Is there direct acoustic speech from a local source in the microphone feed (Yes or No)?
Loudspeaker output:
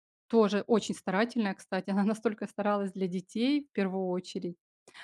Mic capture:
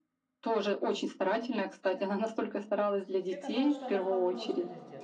Yes